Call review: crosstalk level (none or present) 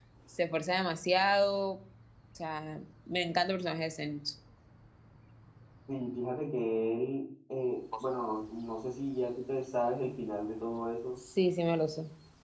none